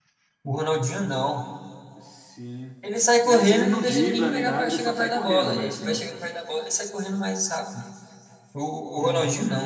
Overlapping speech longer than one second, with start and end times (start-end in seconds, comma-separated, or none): 3.2-6.0